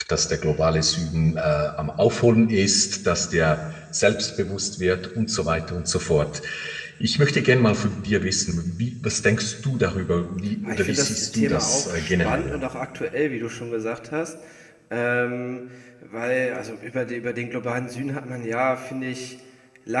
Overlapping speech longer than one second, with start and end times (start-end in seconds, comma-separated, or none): 10.6-12.6